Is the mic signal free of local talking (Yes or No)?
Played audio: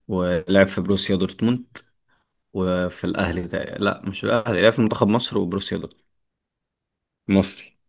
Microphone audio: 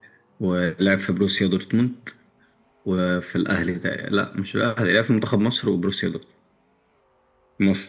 Yes